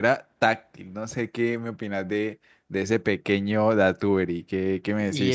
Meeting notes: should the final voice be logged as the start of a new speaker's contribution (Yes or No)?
Yes